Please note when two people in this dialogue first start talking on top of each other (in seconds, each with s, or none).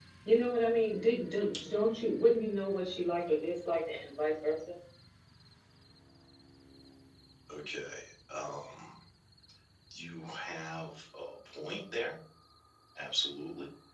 none